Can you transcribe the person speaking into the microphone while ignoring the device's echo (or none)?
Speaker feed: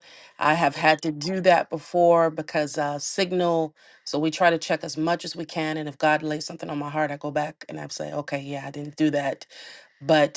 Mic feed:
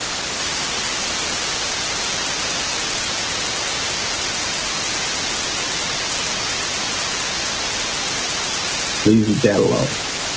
leave your dad alone.